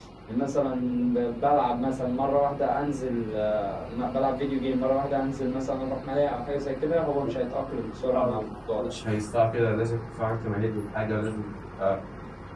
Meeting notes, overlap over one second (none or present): none